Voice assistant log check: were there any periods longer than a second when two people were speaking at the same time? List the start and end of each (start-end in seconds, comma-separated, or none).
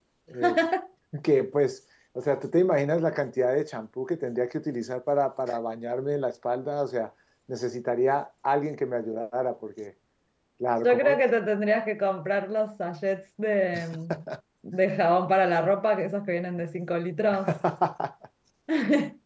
none